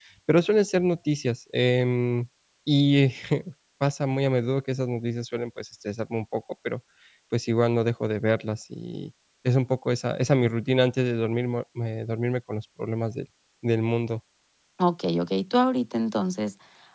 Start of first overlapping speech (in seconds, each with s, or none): none